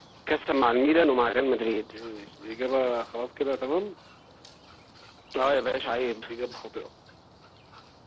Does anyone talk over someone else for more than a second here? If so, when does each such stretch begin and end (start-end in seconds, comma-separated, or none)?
none